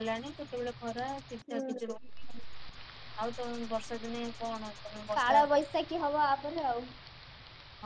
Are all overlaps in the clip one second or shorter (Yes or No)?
Yes